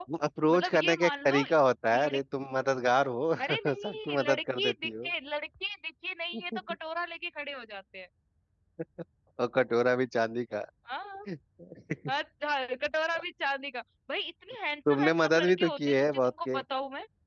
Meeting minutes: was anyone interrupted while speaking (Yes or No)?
Yes